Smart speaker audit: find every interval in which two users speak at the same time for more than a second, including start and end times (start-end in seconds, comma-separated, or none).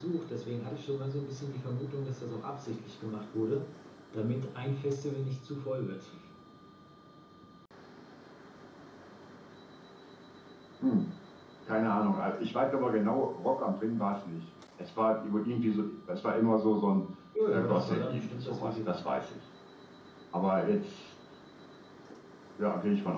17.5-19.0